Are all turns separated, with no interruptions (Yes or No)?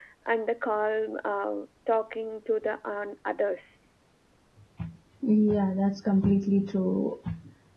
Yes